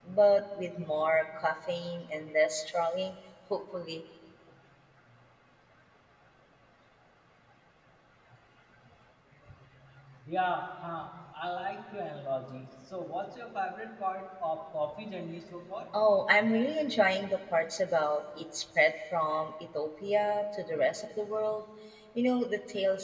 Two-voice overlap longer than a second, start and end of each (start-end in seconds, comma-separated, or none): none